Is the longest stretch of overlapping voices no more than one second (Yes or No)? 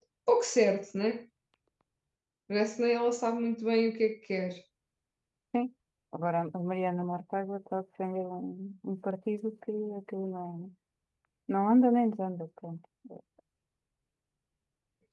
Yes